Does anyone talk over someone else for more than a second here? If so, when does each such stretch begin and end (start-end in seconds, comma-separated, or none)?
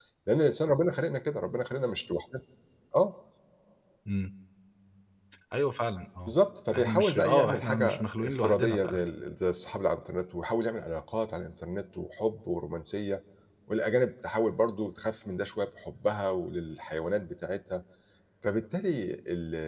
6.8-9.1